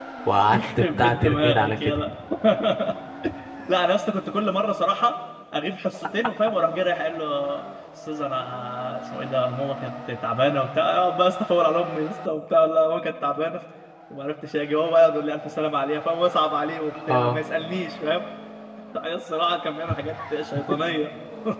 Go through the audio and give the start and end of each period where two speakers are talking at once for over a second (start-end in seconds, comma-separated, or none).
0.5-2.0